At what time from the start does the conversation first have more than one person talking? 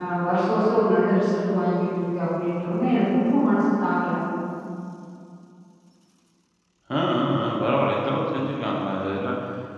none

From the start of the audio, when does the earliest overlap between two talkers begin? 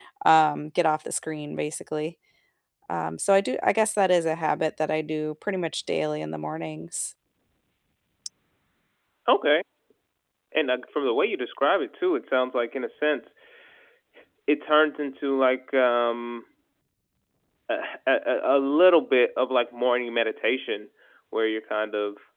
none

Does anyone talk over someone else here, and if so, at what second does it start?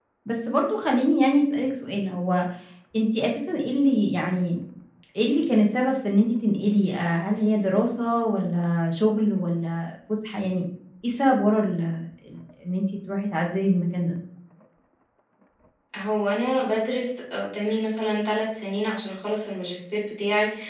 none

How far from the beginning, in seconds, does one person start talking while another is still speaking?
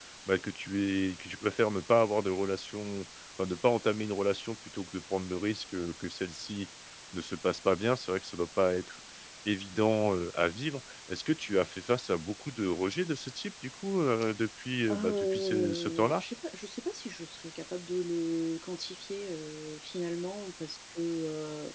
14.9 s

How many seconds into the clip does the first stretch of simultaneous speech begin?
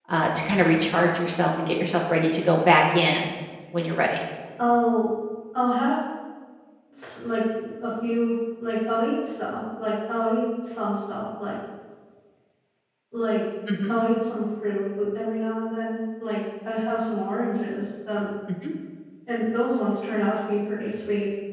none

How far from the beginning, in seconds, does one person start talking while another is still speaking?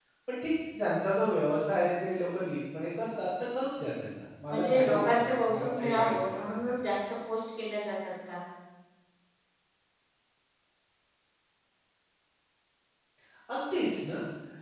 4.5 s

